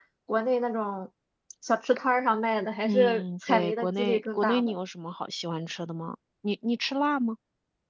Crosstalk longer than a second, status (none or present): present